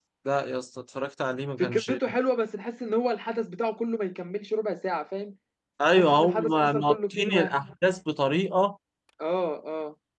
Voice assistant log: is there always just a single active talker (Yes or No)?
No